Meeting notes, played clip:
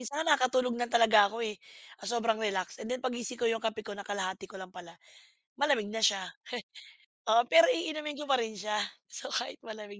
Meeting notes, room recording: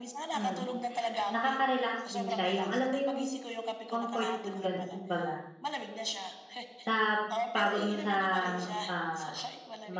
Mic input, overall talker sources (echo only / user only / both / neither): both